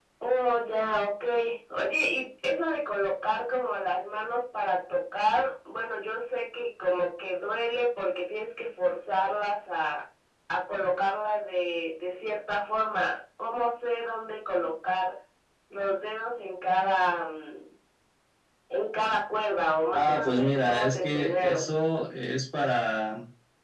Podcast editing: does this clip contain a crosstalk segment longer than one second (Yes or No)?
Yes